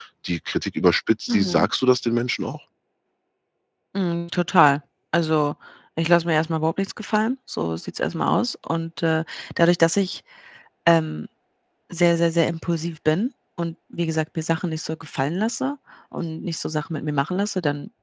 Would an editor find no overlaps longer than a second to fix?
Yes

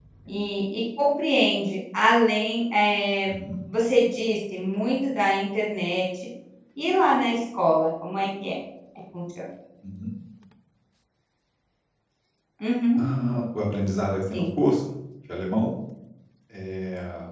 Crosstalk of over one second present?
No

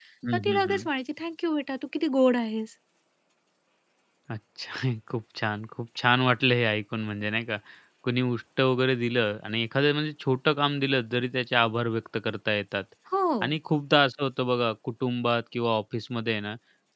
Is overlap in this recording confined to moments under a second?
Yes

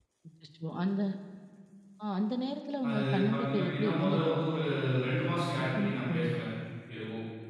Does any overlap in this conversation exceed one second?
Yes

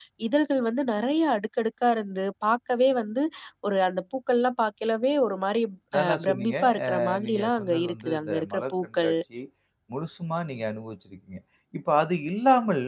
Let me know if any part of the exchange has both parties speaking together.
Yes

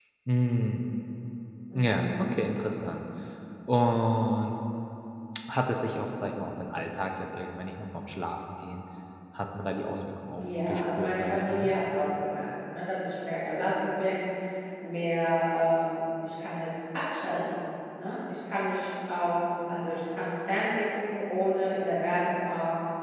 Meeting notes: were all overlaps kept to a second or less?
No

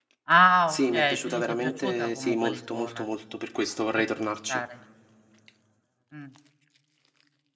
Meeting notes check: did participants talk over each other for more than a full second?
Yes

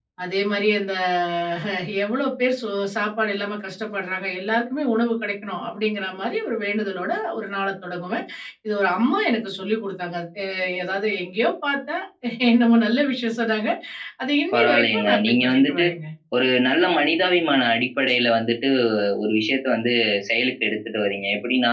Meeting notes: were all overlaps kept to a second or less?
No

